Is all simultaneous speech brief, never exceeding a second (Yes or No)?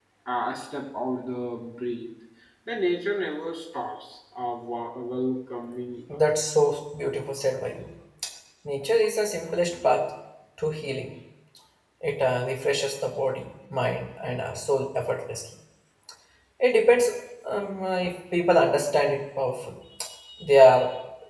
Yes